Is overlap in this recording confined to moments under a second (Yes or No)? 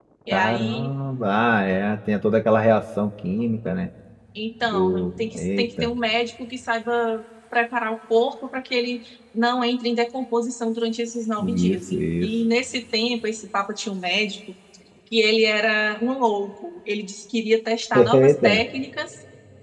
No